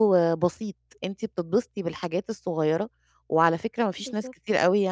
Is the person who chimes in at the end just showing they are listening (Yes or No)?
Yes